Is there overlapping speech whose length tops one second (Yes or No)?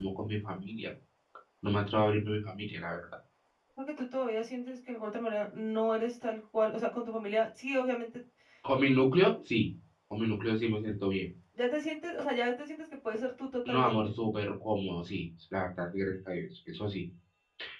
No